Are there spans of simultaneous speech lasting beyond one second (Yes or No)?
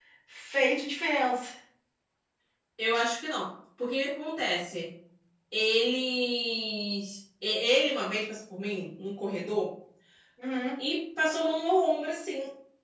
No